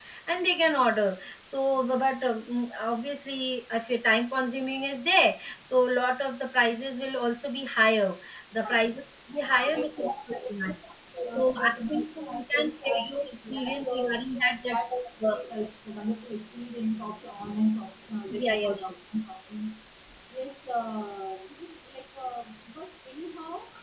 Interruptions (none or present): present